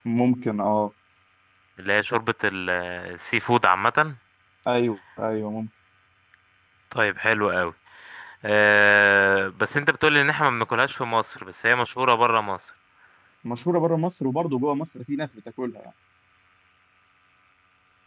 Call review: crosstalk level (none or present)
none